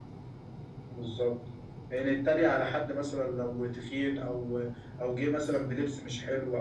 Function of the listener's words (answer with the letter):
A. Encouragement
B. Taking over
A